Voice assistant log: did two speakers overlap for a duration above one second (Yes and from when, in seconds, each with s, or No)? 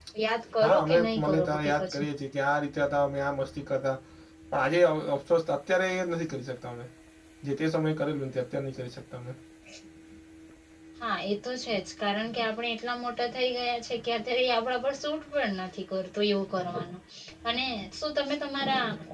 Yes, from 0.6 s